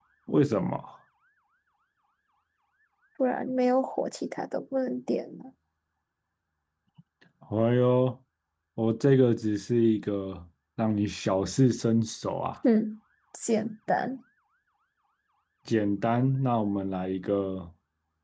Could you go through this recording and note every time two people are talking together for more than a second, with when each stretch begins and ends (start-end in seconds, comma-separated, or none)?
none